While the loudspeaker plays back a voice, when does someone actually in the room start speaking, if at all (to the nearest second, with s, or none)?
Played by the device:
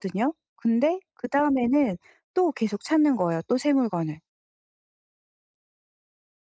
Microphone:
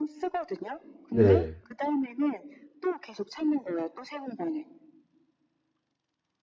1 s